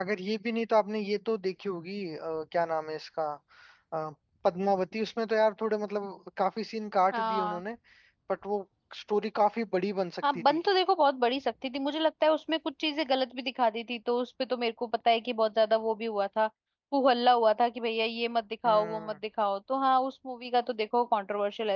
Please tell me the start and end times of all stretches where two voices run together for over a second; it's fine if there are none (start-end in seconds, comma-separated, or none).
none